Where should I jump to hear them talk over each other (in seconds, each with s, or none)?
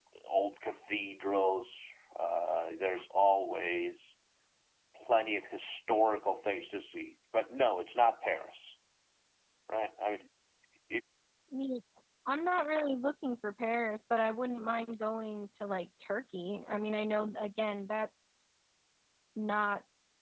none